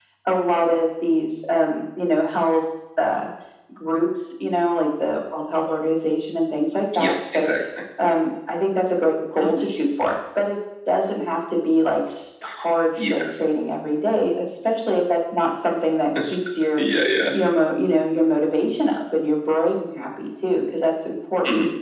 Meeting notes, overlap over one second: none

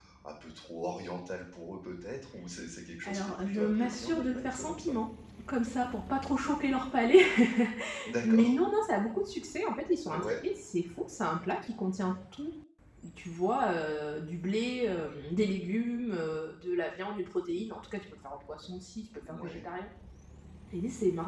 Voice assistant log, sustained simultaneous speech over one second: present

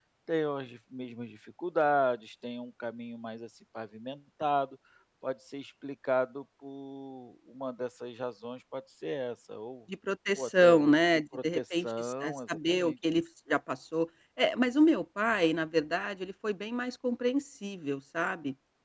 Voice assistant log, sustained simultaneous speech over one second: present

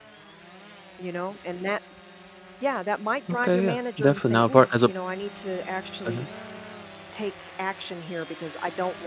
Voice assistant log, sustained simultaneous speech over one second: present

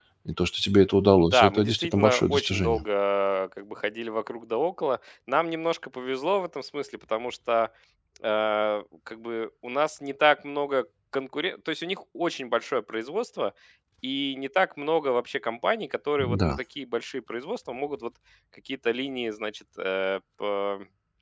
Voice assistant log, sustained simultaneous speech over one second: present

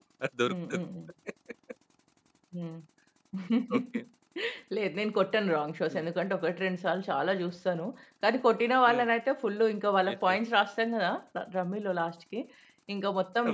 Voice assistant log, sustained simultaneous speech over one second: none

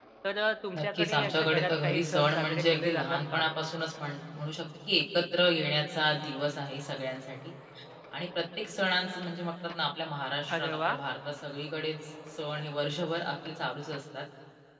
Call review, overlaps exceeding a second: present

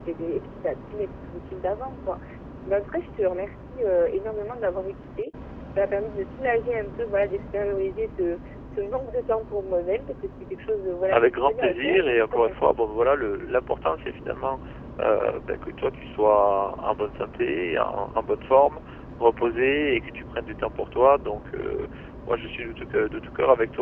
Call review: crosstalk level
present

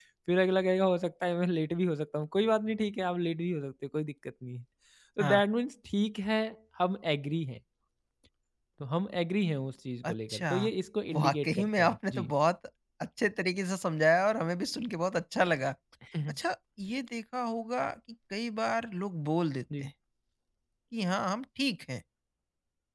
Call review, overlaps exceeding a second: present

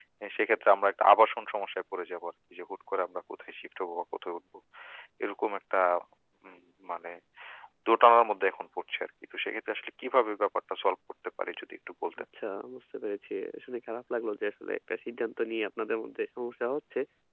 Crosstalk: none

